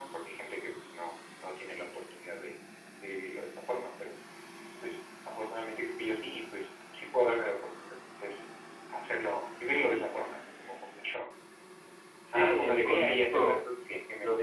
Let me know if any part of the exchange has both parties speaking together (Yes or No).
Yes